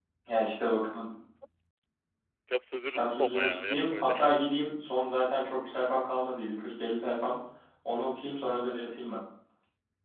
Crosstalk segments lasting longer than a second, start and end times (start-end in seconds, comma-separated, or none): 2.8-4.1